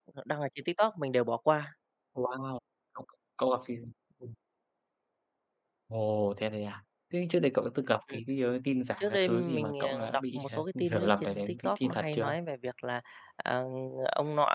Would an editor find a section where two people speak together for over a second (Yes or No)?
Yes